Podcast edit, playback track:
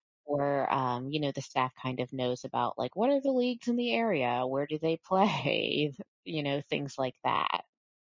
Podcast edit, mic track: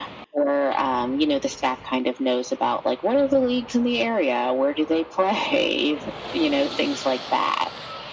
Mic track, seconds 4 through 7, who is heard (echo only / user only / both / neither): echo only